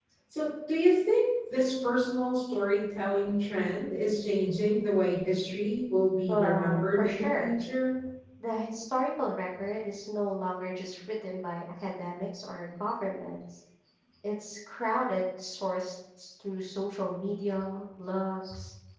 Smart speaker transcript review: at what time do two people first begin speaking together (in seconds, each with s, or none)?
6.3 s